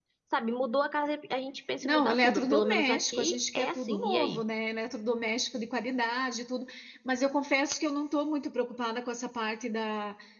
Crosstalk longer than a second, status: present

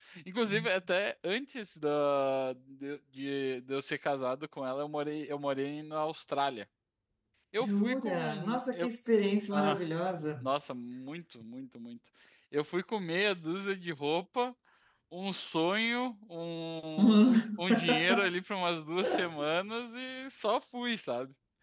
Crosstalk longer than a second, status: present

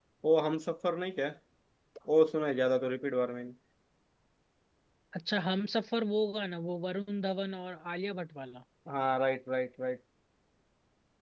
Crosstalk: none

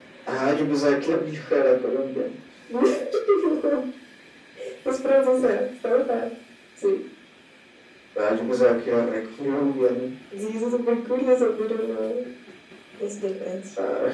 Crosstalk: none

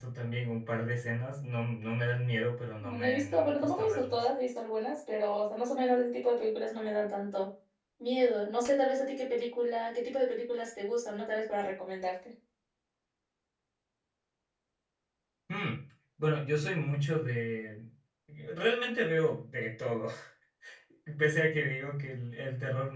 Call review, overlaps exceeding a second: present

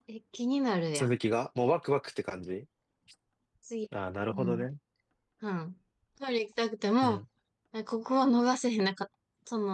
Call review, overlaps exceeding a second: none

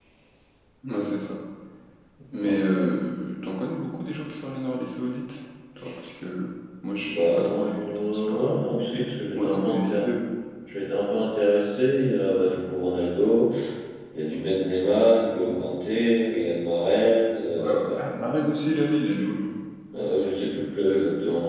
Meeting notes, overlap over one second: present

